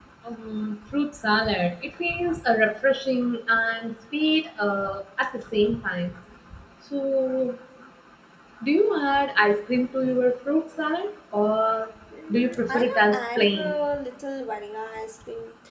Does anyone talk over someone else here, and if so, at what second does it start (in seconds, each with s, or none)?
12.3 s